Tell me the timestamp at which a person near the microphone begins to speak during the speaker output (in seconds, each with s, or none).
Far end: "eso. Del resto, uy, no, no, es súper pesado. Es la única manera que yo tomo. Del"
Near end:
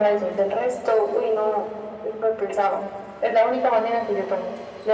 none